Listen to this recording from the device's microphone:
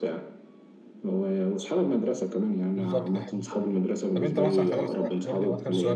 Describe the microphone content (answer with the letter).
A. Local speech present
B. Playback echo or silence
A